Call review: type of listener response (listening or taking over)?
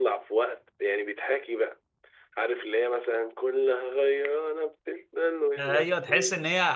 taking over